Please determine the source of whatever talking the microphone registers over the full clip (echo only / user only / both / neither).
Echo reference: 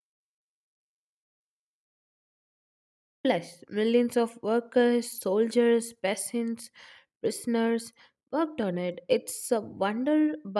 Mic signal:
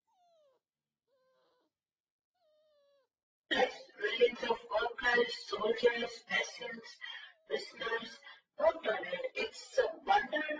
echo only